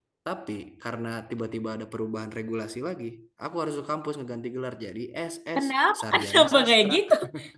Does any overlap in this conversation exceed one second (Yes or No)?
Yes